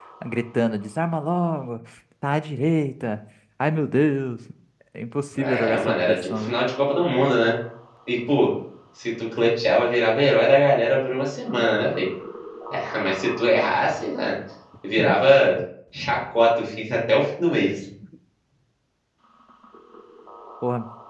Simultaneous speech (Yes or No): Yes